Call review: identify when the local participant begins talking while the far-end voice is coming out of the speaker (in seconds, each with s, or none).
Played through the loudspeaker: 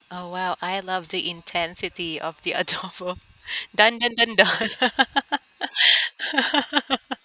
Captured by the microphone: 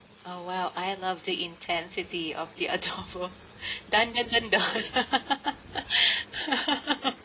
none